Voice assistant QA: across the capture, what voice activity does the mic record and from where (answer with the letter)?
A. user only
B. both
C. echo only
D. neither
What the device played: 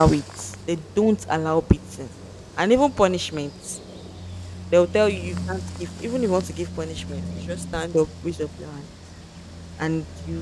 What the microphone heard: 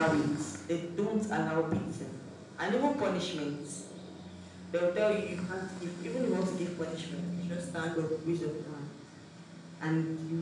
C